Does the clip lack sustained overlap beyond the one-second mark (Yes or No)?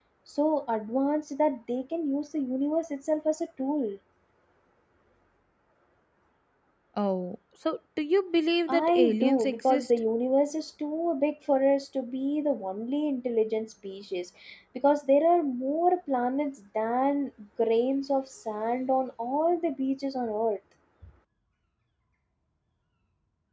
No